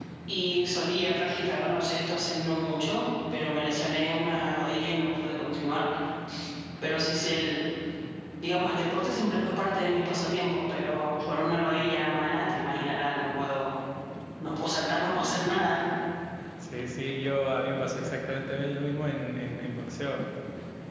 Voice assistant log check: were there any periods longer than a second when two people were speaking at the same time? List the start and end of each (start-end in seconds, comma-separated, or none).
none